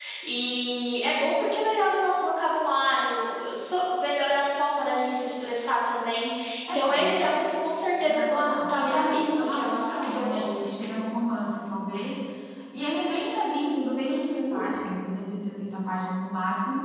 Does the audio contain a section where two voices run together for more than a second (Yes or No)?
Yes